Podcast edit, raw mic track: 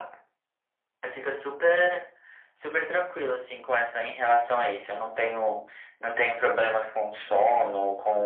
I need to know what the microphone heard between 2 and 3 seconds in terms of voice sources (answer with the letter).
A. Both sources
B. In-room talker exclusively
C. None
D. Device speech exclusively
D